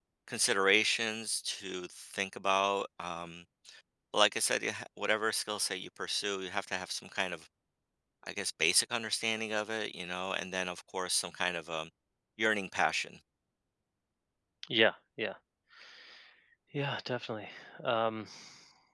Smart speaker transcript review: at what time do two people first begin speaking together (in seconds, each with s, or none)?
none